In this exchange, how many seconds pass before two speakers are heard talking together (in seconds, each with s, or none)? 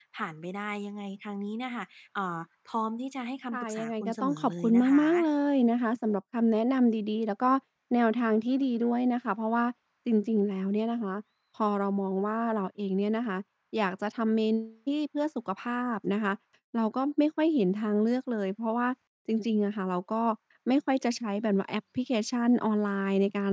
3.5 s